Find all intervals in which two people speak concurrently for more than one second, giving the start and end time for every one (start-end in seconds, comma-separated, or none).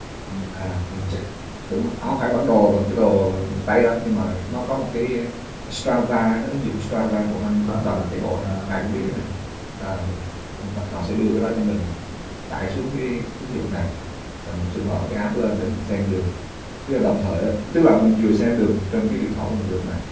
7.6-9.0